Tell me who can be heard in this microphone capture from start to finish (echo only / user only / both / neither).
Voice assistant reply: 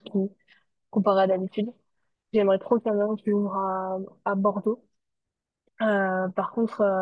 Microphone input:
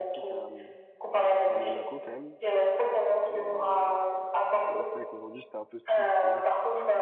both